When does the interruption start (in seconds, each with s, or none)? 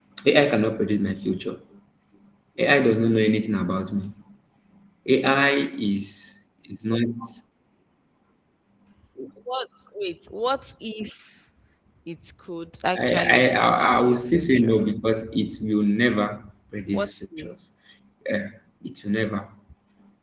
12.9 s